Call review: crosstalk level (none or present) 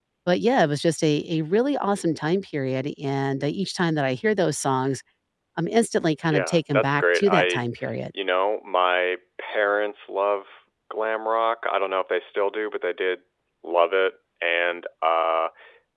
present